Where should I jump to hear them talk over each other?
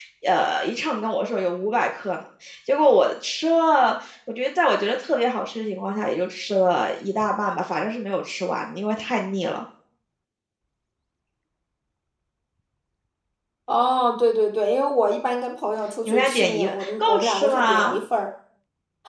16.1 s

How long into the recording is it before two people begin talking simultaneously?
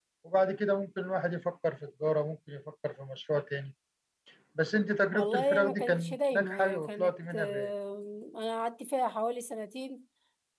5.1 s

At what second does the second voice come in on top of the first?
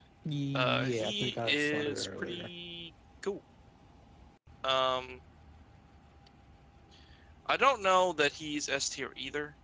0.6 s

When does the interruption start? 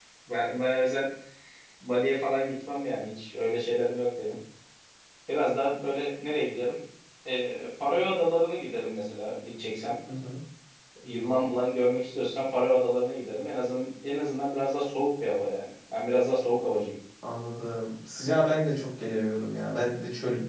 none

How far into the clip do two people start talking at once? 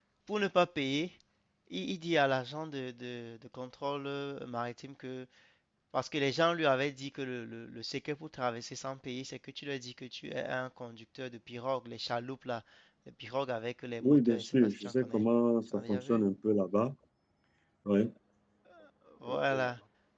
14.0 s

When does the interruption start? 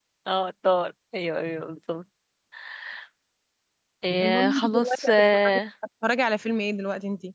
4.2 s

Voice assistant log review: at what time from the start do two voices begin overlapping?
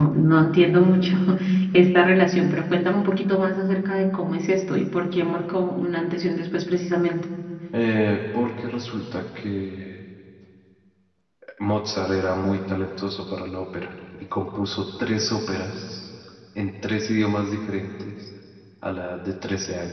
none

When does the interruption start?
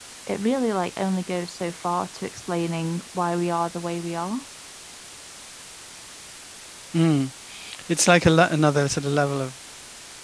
none

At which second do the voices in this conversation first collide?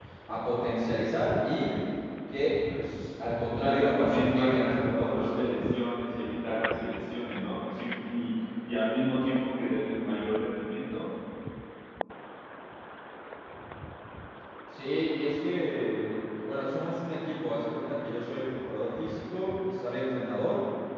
3.6 s

